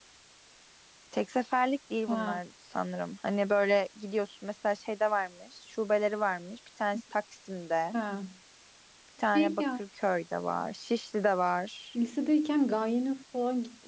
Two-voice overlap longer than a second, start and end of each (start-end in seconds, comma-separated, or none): none